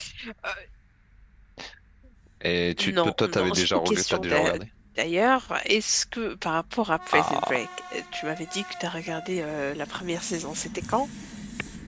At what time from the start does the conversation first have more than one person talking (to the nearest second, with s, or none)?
3 s